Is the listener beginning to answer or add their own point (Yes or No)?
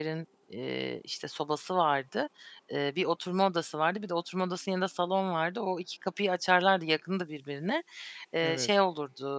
No